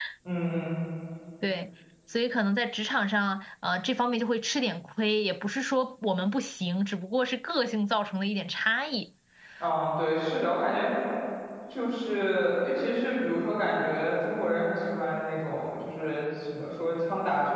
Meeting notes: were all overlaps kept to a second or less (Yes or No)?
Yes